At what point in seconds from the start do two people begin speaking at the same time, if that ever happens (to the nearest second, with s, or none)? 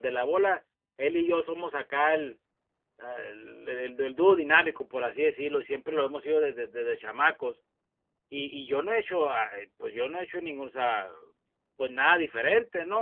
none